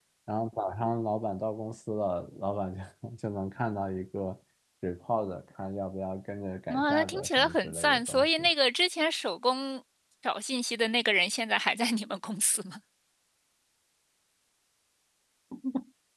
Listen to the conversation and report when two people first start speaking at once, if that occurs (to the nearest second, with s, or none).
7 s